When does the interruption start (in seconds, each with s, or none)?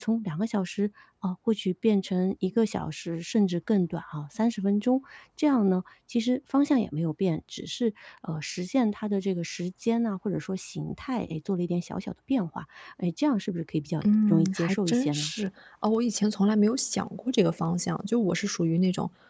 14.0 s